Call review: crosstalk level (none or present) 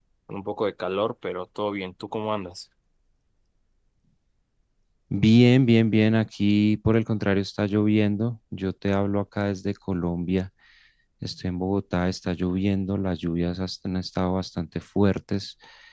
none